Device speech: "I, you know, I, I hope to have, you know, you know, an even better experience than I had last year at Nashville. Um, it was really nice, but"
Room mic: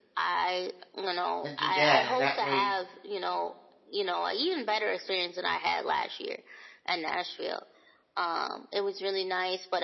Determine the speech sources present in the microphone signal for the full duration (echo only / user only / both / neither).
both